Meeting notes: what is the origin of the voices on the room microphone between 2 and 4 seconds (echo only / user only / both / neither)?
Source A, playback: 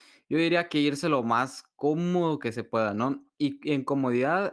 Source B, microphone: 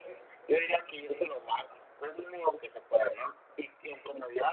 echo only